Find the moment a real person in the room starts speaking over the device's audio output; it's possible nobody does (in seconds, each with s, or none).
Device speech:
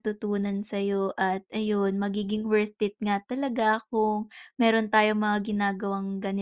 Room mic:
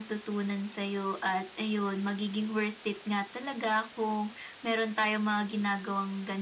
none